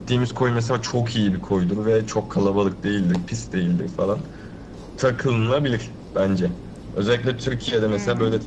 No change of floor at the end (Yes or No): Yes